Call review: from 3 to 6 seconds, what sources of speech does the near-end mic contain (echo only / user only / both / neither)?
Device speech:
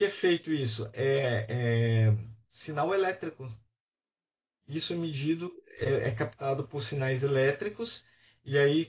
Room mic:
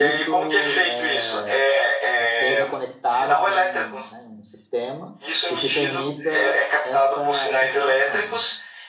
both